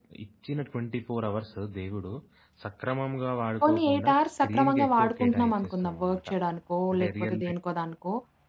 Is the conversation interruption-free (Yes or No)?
No